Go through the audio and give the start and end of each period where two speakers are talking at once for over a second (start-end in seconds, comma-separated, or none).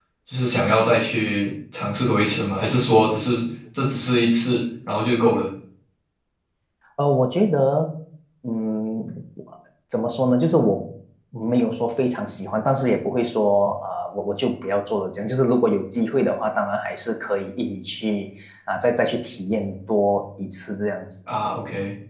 none